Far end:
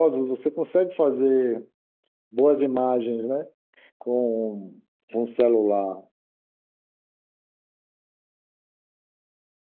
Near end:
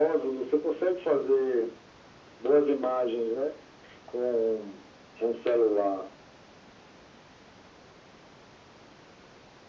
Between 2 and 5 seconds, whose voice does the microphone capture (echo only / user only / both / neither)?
echo only